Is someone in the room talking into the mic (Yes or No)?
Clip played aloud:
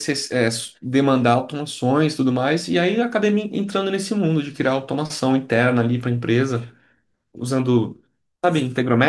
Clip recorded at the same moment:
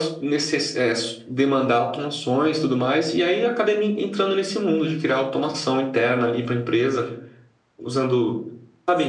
No